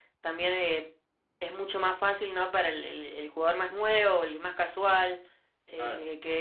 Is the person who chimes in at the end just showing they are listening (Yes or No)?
Yes